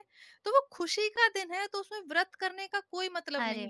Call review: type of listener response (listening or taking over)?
taking over